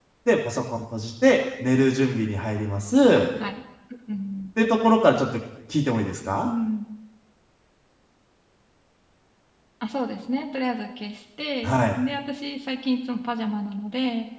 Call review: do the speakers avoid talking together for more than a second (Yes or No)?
Yes